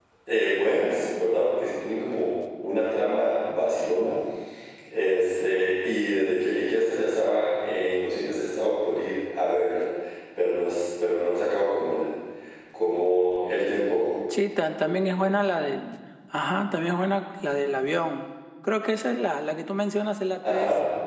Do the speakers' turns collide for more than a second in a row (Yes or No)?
No